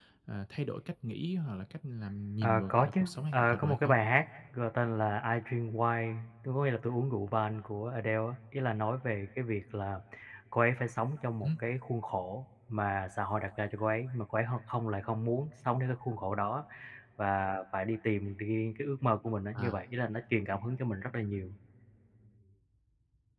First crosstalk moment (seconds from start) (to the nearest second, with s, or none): 2 s